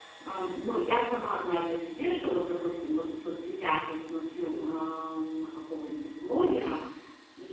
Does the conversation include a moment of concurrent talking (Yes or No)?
No